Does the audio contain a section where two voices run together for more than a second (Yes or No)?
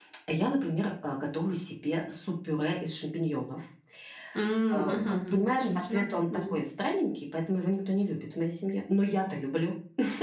Yes